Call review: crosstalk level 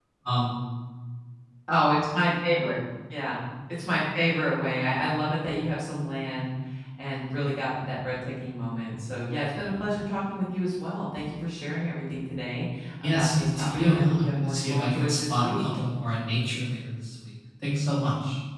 present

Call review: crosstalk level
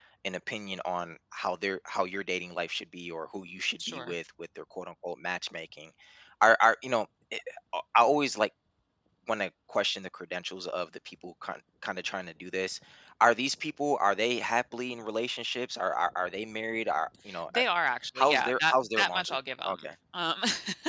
present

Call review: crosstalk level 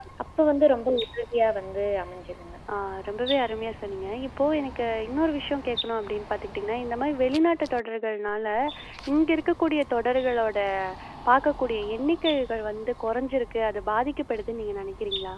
none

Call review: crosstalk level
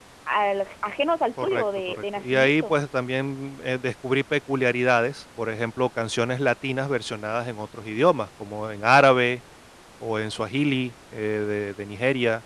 present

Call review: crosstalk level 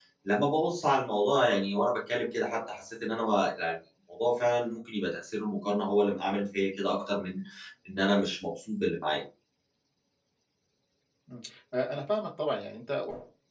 none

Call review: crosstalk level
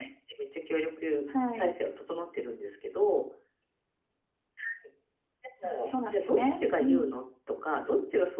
present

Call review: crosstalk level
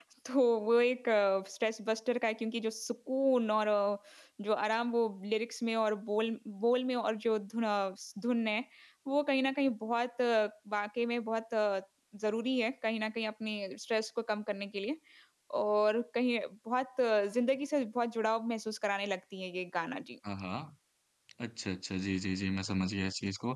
none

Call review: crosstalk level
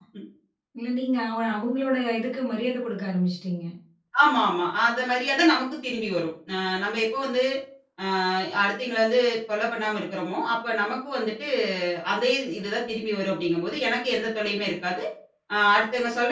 none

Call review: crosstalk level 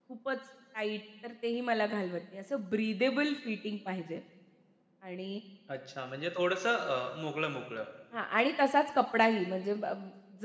none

